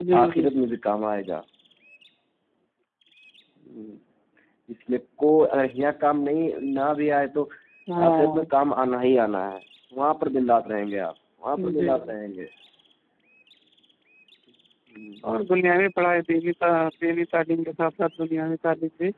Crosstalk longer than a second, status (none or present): none